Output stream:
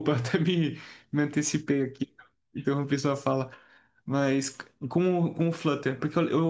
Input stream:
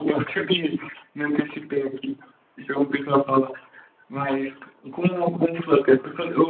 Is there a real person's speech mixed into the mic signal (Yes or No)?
No